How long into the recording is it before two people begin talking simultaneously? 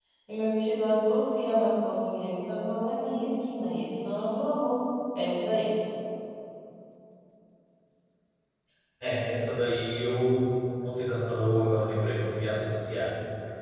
none

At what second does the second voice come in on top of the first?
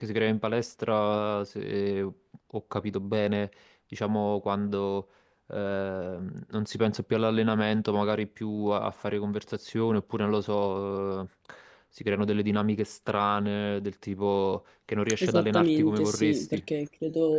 15.2 s

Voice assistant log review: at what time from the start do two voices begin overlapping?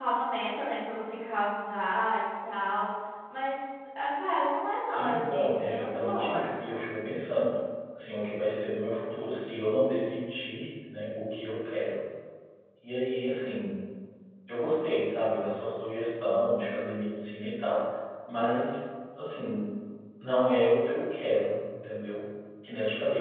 4.8 s

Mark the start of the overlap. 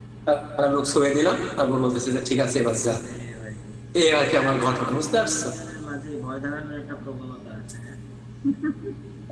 4.0 s

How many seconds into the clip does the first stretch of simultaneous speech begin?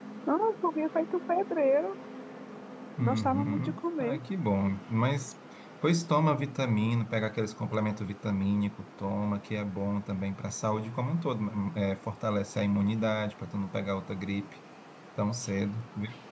3.0 s

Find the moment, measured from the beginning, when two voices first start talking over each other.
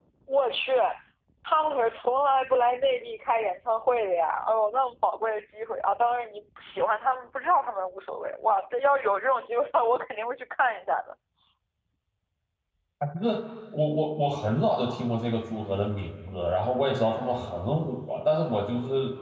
none

